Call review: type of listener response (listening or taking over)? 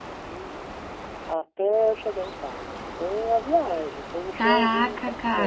taking over